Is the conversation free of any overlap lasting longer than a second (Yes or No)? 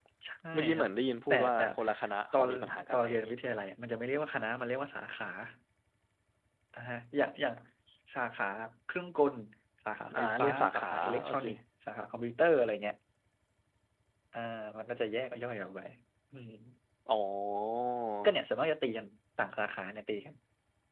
No